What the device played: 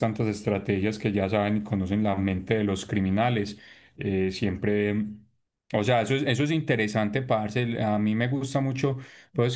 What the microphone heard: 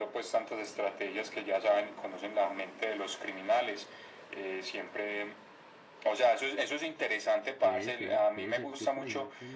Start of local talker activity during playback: 7.6 s

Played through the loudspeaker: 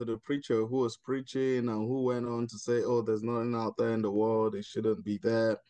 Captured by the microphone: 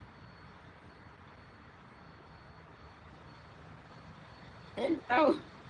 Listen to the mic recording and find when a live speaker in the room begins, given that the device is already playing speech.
4.8 s

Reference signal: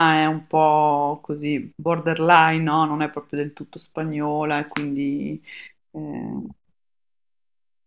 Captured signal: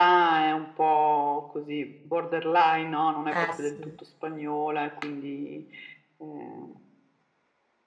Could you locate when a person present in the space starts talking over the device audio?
3.3 s

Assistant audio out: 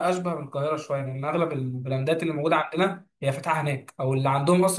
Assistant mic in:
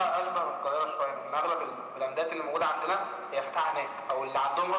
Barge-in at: none

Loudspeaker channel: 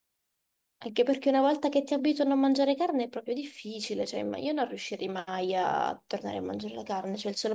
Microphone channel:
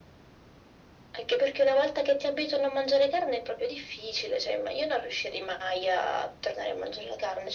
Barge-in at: none

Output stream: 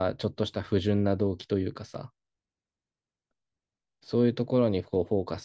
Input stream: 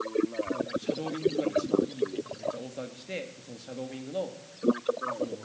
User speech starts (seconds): 0.4 s

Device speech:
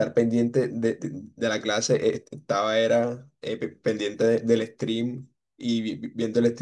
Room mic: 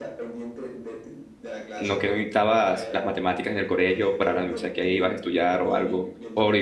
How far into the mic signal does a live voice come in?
1.8 s

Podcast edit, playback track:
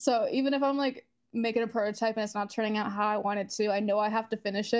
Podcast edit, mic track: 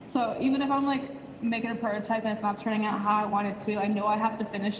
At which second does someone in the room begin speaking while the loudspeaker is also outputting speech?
none

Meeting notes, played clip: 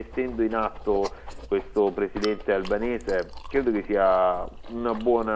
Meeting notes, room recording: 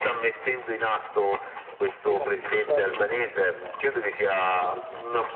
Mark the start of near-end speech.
2.0 s

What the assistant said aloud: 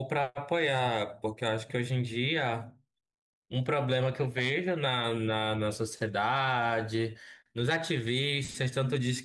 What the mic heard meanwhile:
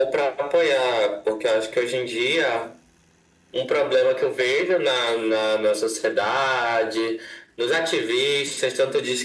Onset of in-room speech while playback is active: none

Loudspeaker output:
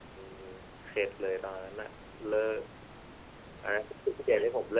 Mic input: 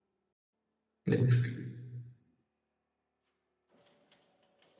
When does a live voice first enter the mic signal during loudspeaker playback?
1.1 s

